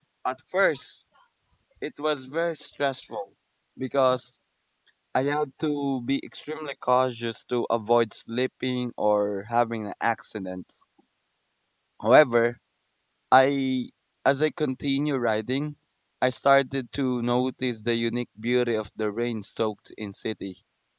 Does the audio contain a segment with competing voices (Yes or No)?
No